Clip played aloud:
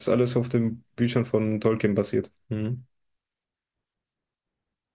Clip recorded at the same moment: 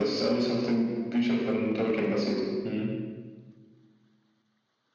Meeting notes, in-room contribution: none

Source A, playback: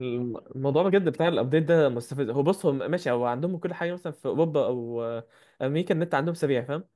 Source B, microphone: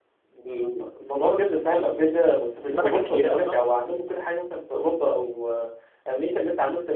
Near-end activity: present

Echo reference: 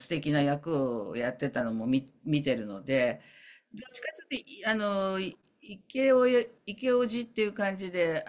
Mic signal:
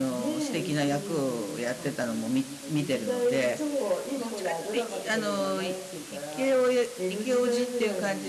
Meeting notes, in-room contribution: present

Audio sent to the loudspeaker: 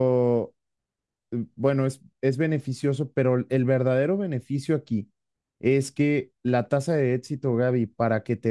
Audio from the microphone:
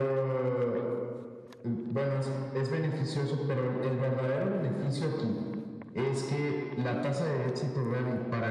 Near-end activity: none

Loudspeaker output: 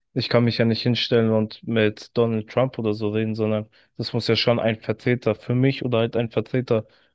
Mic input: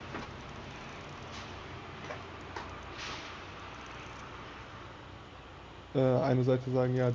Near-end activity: present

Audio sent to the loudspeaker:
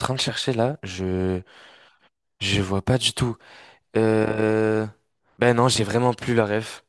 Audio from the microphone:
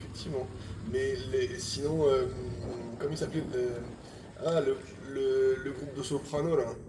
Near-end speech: present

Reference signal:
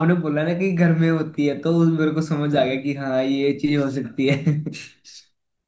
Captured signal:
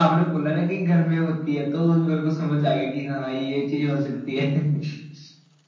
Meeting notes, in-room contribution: none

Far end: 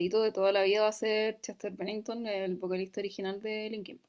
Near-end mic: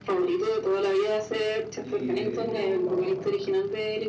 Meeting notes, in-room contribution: present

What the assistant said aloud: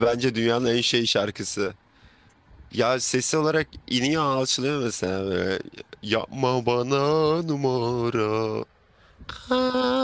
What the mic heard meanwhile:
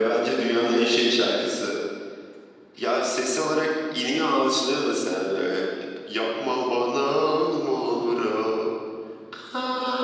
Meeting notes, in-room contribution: none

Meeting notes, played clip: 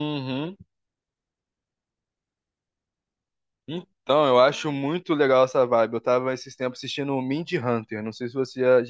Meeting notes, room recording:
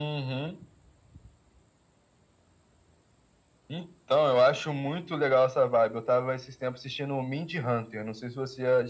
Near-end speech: none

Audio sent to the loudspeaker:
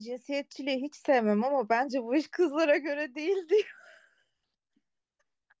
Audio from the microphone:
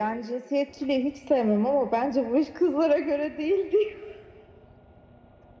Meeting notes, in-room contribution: none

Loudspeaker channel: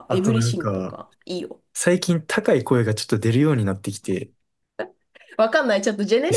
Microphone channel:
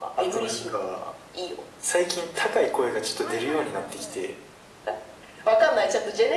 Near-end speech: present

